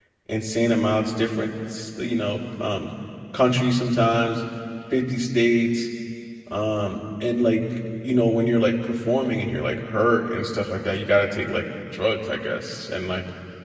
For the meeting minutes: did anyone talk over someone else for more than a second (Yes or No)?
No